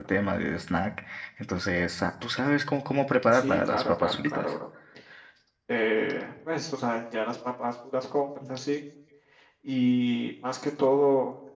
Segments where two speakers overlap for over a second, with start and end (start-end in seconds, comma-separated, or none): 3.3-4.5